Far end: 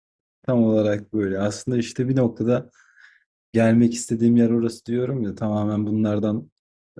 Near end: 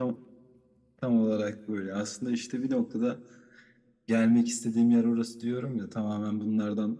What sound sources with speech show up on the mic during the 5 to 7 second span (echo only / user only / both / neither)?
echo only